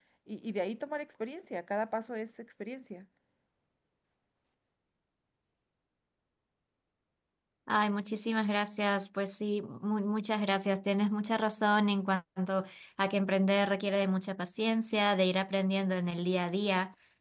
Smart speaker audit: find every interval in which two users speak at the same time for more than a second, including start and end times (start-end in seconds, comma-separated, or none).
none